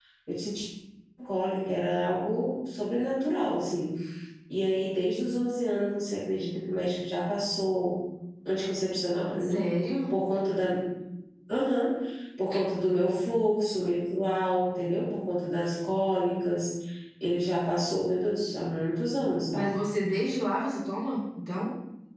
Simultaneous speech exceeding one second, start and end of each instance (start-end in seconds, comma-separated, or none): none